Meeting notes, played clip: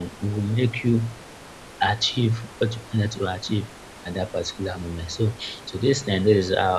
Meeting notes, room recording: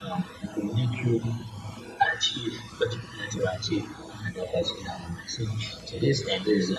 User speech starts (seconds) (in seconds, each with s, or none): none